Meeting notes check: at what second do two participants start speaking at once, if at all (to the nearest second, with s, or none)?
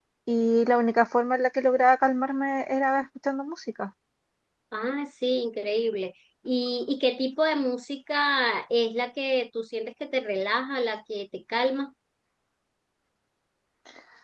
none